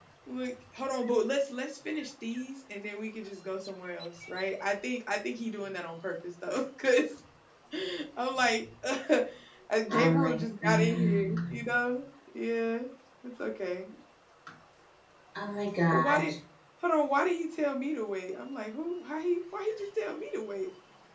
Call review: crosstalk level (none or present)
present